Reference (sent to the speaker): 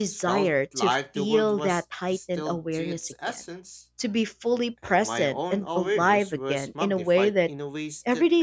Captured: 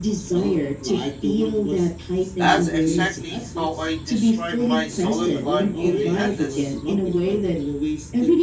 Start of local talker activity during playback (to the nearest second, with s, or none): 2 s